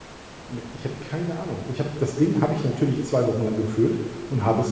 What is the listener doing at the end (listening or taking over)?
listening